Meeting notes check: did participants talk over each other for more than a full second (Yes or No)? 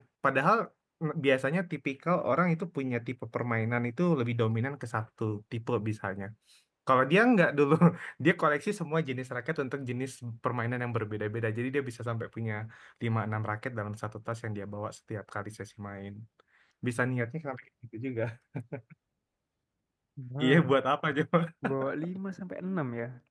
No